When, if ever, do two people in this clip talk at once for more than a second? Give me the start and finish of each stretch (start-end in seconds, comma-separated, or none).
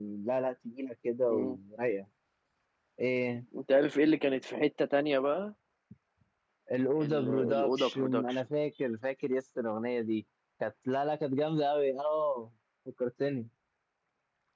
7.0-8.4